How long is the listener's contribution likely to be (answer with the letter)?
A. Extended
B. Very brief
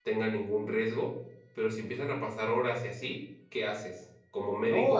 A